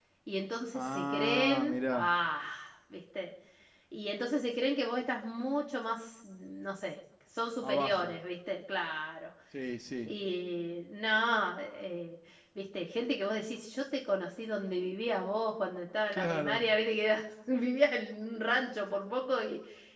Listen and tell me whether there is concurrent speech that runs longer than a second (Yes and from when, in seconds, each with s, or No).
Yes, from 0.7 s